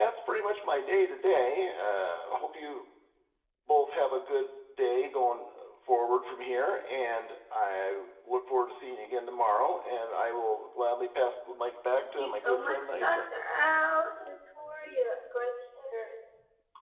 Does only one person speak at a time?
No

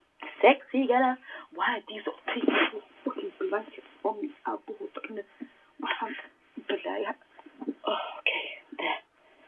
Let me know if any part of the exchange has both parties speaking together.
No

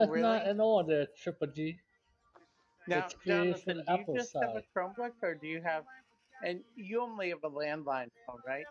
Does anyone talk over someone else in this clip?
Yes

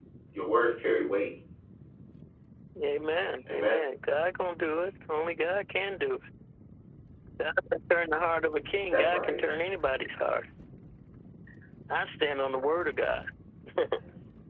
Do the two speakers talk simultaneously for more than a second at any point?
No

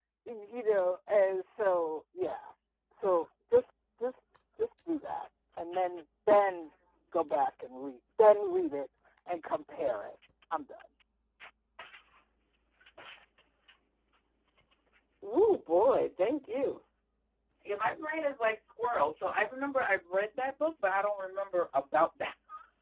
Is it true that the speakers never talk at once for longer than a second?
Yes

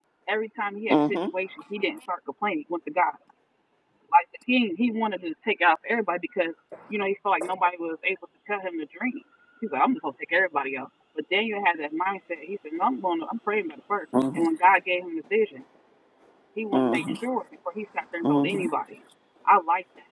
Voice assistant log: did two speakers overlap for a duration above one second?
No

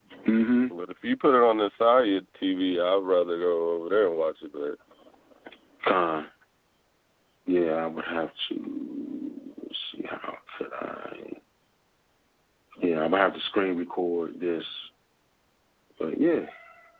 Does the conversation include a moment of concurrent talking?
No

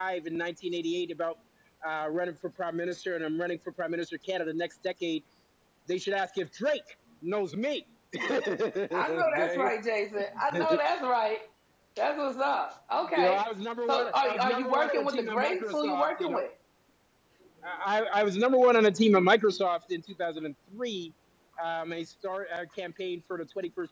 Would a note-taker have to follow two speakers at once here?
Yes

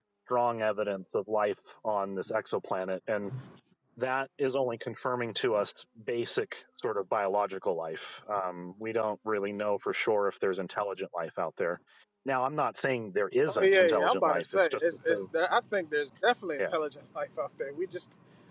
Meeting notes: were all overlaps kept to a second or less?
No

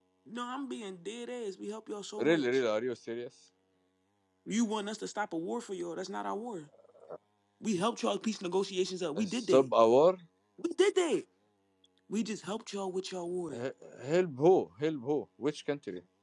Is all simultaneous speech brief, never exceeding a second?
Yes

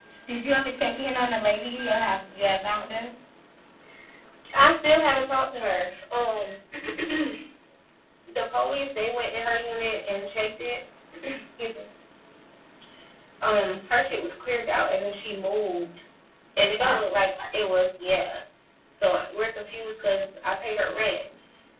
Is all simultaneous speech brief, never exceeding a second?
Yes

